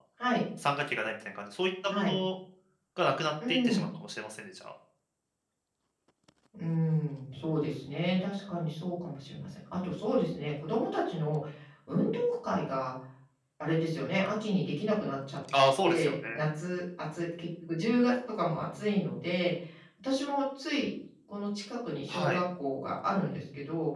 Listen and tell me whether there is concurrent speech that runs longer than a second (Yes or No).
No